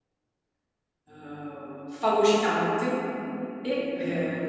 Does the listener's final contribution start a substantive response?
No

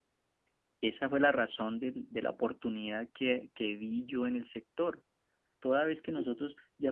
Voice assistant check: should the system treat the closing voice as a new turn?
No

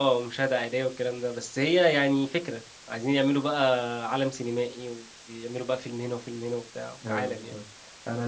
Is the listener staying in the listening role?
No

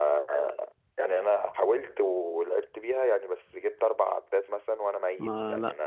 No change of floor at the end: No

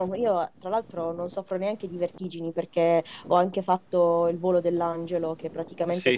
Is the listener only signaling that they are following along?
Yes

